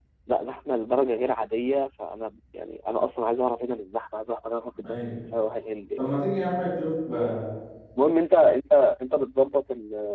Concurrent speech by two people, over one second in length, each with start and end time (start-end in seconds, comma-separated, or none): none